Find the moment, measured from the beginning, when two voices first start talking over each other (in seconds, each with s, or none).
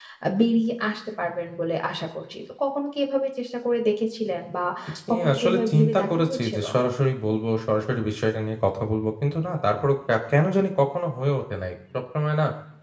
5.1 s